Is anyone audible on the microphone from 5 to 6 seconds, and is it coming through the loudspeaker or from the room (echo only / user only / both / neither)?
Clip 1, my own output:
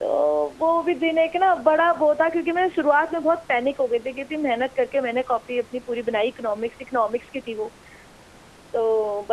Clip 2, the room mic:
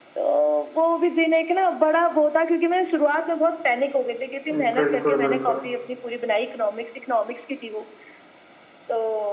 both